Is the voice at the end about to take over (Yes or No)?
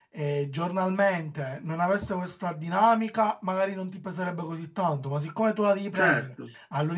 No